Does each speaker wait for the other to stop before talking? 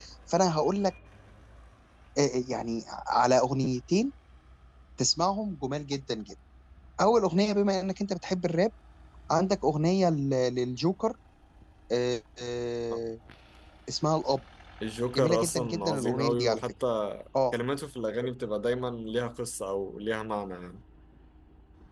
No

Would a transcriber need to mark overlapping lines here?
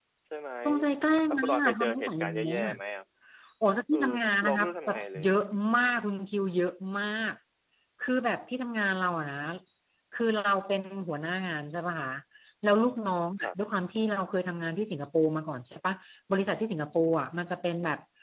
Yes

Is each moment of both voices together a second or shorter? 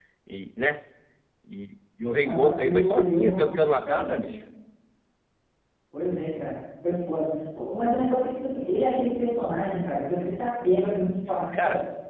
No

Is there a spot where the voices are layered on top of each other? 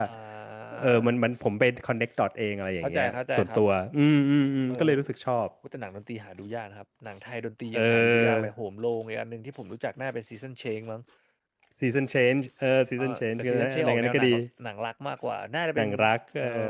Yes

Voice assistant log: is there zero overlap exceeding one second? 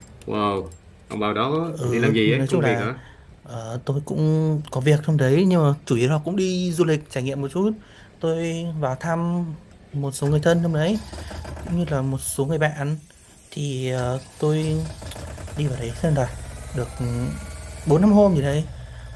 No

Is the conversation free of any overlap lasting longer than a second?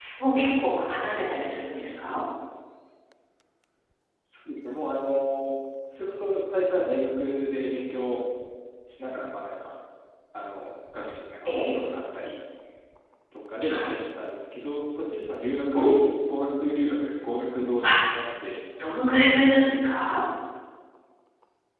Yes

